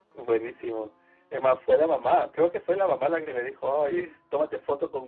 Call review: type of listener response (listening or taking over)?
listening